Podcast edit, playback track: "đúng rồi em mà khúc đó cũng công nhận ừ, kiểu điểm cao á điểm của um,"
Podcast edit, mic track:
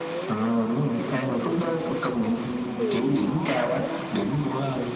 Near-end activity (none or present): present